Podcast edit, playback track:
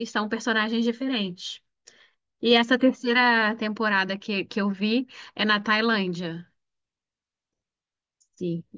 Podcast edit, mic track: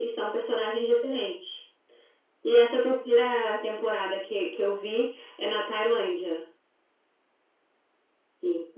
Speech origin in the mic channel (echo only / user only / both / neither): echo only